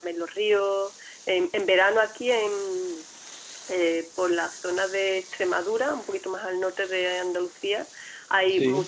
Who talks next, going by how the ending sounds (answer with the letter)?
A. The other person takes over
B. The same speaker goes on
B